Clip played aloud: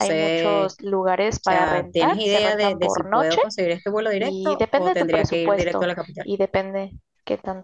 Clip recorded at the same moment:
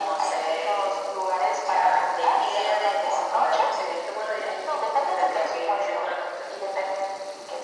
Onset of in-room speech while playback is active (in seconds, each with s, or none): none